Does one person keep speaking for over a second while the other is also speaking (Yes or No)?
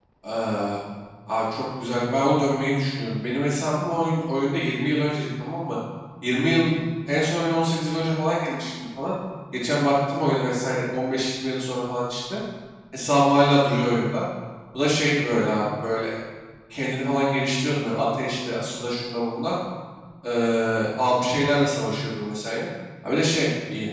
No